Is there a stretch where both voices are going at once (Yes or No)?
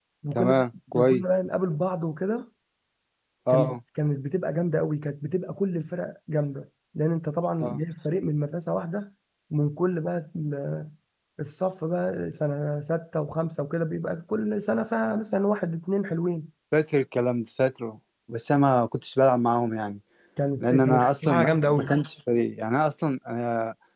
Yes